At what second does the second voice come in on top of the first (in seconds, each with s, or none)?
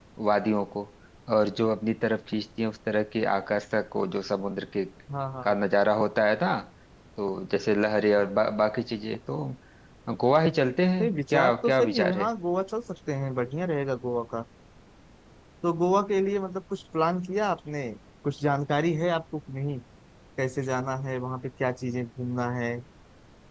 11.0 s